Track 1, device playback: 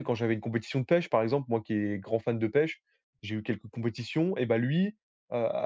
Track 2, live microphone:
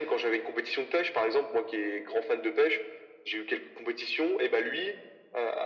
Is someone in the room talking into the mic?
No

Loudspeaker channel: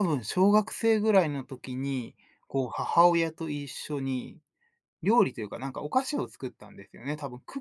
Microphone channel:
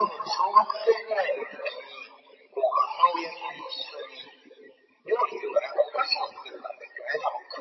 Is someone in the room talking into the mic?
No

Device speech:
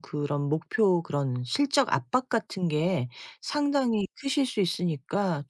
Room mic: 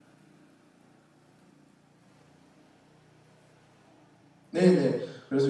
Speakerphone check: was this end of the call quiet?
No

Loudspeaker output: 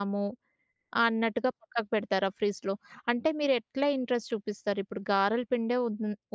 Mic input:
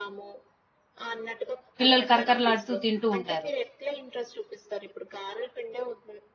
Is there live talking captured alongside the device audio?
Yes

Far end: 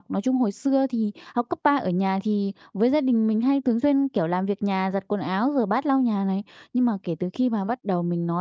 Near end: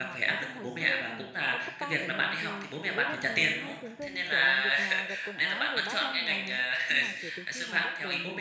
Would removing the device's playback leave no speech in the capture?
No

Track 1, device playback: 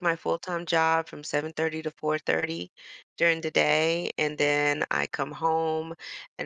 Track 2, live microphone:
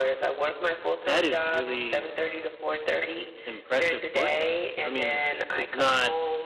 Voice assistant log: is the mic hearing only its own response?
No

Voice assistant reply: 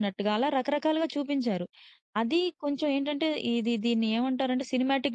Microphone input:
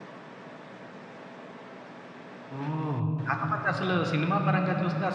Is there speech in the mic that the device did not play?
Yes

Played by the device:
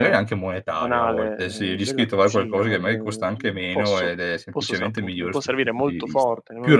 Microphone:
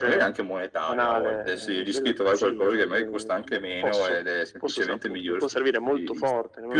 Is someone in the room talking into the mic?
No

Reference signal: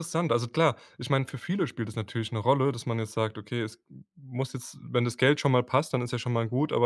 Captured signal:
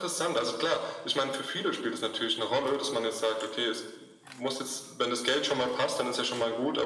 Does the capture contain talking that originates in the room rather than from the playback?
No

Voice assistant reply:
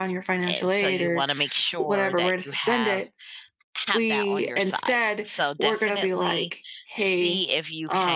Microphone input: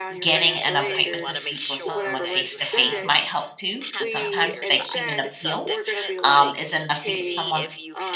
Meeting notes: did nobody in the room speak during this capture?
No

